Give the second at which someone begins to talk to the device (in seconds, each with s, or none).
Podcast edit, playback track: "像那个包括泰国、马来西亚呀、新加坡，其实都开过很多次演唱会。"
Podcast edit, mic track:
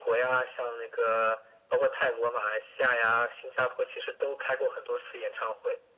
none